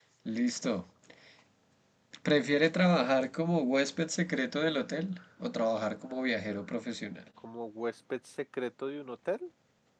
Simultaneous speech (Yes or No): No